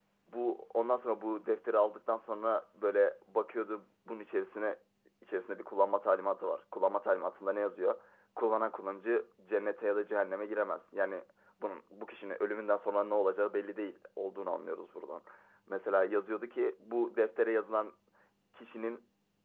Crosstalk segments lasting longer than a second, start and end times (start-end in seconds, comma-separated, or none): none